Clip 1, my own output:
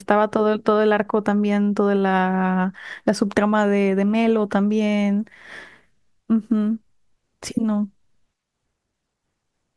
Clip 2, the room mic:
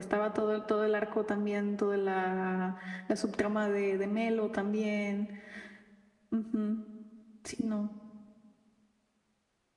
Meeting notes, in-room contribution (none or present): none